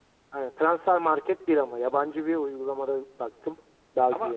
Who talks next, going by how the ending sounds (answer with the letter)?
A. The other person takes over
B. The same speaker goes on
A